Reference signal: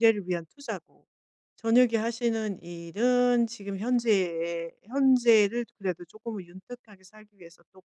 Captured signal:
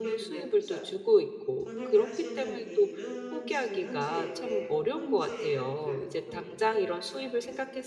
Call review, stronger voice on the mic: user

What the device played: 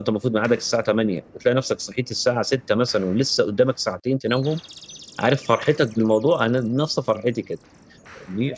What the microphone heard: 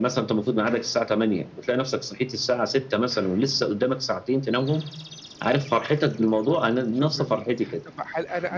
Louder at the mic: echo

